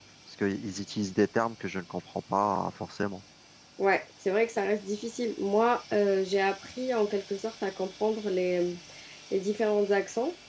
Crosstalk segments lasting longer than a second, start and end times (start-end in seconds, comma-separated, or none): none